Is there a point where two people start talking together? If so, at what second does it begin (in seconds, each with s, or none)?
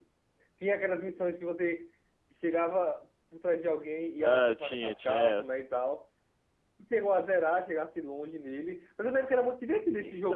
4.2 s